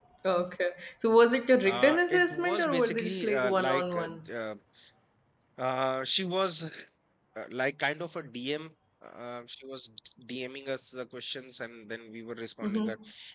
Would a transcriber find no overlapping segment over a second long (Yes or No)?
No